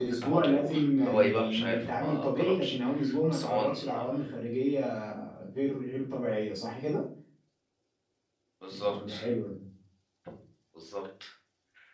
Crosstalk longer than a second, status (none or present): present